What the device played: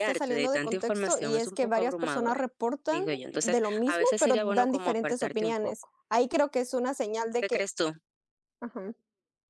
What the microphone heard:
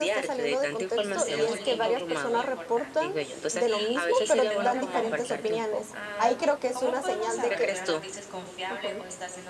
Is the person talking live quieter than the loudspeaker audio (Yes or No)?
Yes